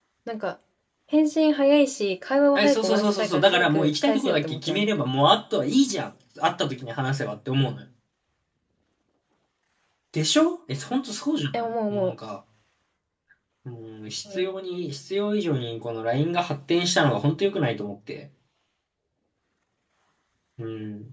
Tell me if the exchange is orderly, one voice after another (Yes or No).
No